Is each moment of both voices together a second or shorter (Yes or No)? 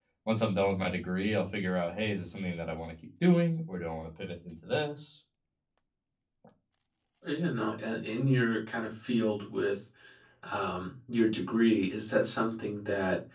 Yes